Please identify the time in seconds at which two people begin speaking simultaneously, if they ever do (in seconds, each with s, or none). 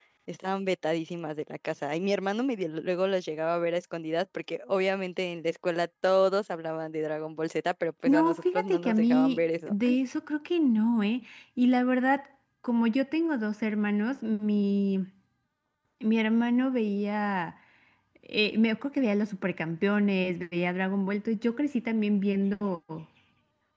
8.1 s